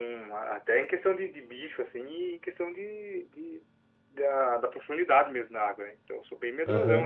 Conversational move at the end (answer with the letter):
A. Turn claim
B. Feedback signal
A